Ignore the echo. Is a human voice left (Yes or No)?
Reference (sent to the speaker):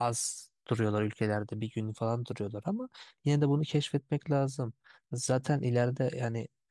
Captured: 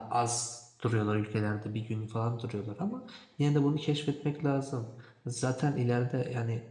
No